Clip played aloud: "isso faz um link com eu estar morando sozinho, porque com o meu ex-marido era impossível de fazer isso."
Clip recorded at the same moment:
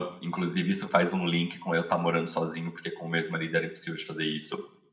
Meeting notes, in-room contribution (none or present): none